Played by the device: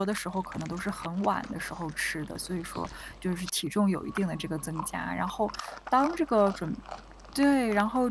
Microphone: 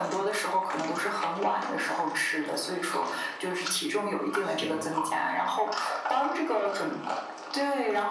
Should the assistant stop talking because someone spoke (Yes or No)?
Yes